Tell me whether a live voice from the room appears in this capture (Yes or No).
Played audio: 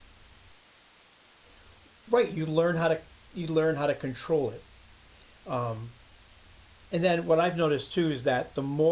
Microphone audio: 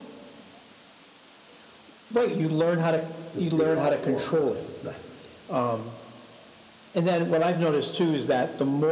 Yes